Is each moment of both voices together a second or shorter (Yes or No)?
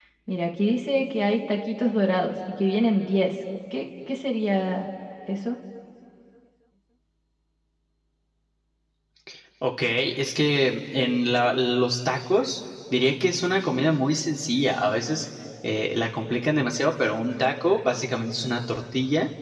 Yes